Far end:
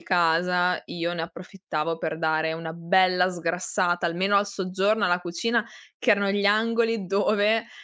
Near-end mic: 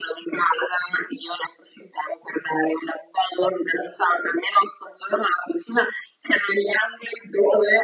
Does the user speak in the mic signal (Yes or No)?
No